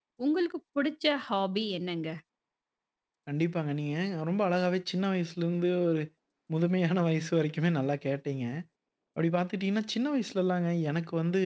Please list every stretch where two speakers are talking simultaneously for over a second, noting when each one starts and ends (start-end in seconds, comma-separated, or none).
none